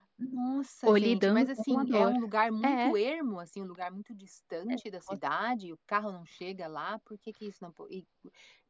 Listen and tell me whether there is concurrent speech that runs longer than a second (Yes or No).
Yes